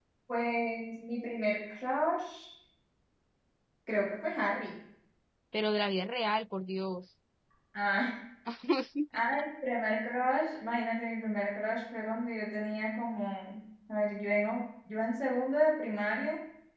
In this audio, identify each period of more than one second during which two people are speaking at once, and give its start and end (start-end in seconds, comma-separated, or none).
none